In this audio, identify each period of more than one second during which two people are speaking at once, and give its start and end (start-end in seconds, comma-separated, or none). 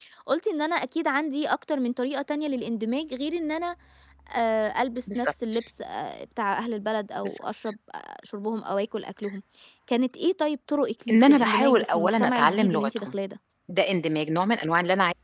11.1-12.9